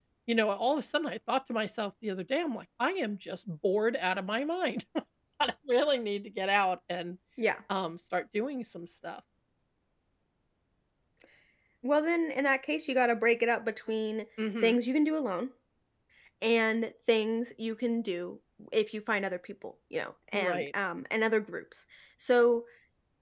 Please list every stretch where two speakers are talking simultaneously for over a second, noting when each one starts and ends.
none

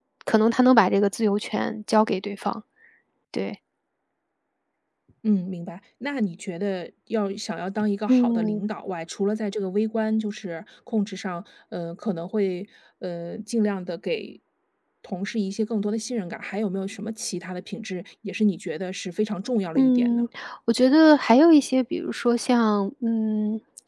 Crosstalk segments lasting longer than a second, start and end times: none

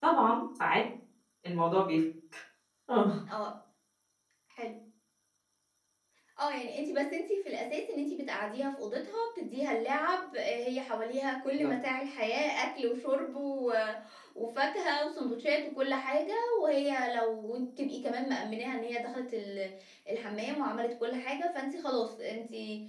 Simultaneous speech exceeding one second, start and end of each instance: none

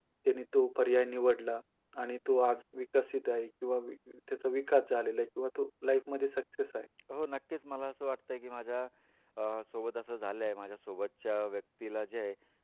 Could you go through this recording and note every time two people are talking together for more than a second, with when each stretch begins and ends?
none

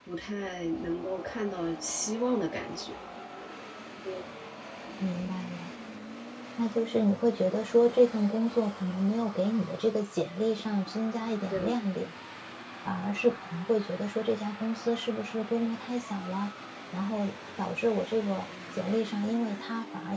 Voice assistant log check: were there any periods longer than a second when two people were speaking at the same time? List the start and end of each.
none

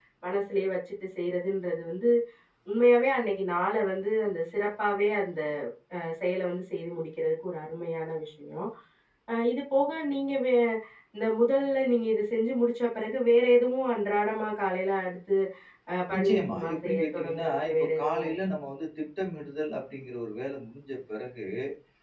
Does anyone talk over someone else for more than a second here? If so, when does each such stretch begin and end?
16.1-18.3

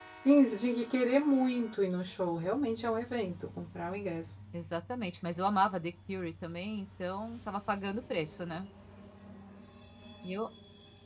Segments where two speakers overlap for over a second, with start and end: none

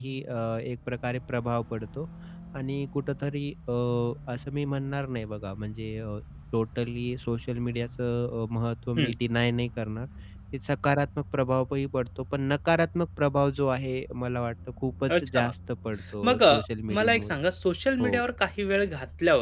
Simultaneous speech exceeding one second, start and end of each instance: none

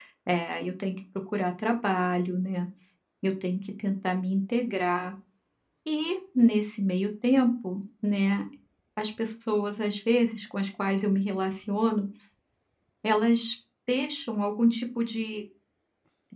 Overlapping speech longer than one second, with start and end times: none

